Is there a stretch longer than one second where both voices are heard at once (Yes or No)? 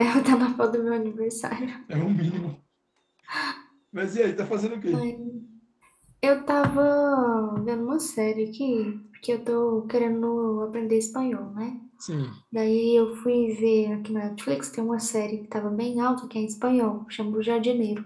No